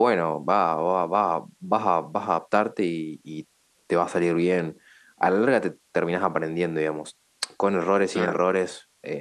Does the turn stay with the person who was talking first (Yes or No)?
Yes